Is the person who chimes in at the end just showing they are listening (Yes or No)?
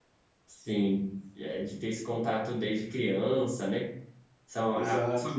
Yes